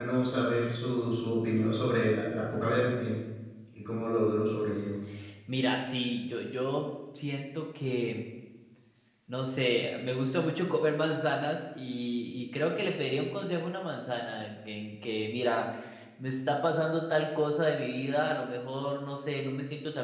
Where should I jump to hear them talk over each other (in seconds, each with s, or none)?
none